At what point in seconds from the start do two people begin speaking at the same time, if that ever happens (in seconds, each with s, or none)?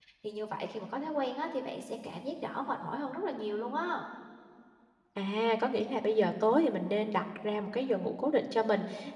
none